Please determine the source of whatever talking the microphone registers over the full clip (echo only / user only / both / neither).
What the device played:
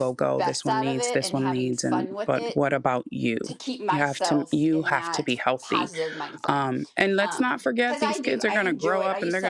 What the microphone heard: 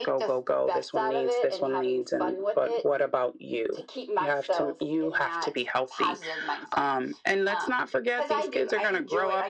echo only